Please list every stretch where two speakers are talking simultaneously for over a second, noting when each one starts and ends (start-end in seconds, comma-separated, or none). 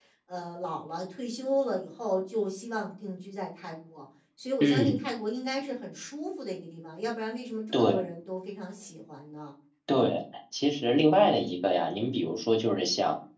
none